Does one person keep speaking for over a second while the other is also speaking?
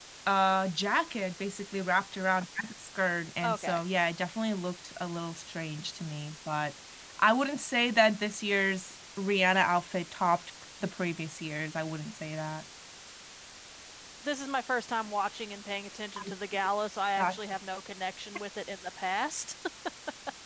No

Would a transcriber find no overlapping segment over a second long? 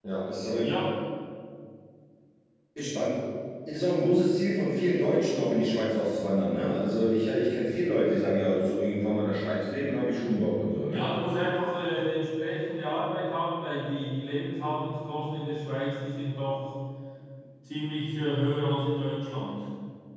Yes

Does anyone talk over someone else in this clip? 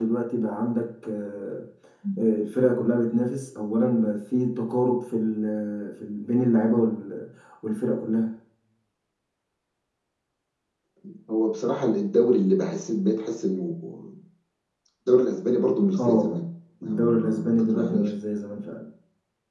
Yes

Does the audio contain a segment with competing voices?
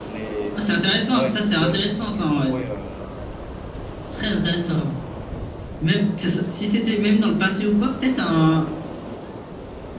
Yes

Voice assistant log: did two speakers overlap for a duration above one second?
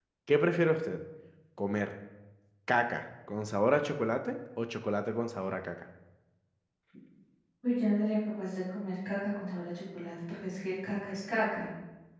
No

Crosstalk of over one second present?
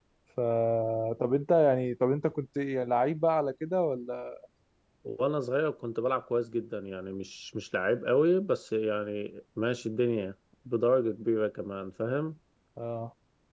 No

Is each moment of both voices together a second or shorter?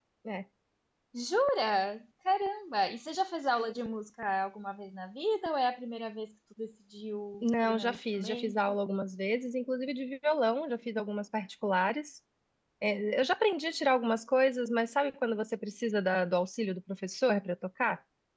No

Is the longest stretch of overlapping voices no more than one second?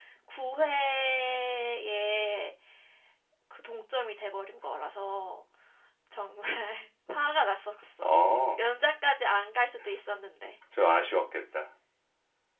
Yes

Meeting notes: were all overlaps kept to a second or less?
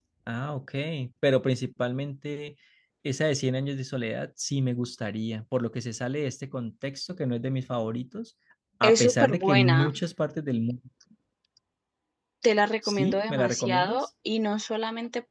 No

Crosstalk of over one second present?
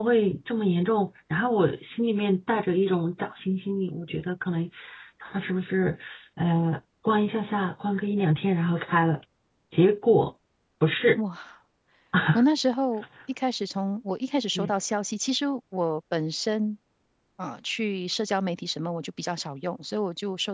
No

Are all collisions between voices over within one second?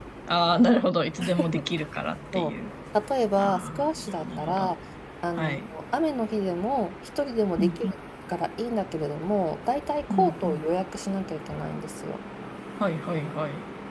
No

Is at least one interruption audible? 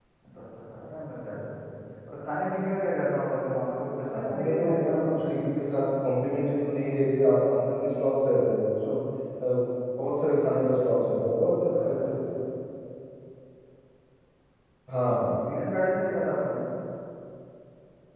Yes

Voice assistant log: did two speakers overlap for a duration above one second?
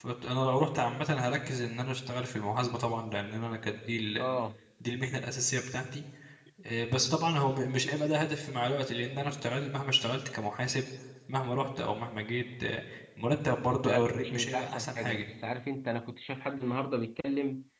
Yes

